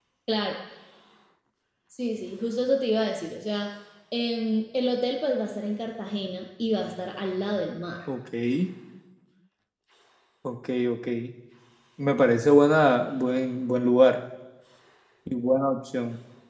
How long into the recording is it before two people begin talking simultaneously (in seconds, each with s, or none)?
none